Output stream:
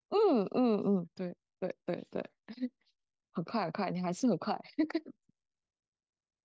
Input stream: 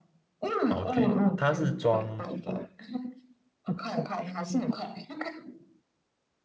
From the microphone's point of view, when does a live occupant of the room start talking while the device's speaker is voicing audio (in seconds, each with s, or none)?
0.7 s